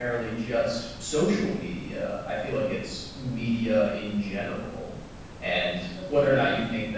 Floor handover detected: No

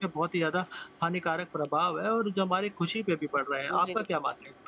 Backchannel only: No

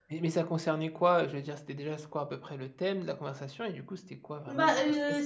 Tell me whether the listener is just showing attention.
No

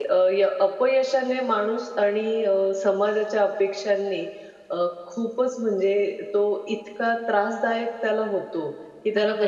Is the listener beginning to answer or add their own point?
No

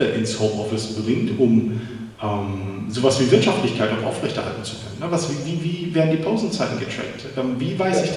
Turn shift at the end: No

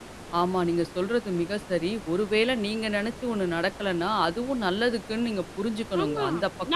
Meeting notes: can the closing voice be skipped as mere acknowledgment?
No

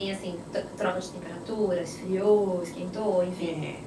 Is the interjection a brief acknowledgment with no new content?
No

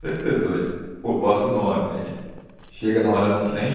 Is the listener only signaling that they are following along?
Yes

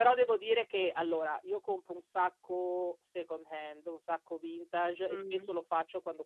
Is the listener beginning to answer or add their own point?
No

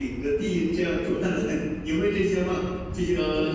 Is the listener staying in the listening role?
No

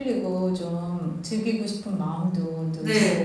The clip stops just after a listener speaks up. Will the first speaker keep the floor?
No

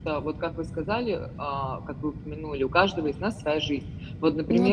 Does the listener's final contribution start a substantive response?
No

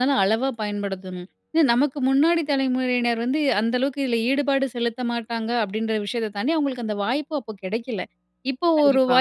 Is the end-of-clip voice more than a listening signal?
No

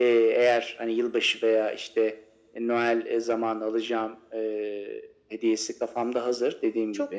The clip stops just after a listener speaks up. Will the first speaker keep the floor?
Yes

